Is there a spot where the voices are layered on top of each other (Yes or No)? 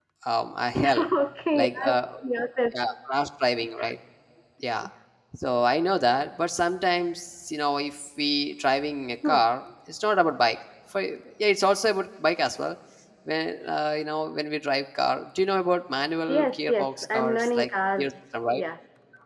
Yes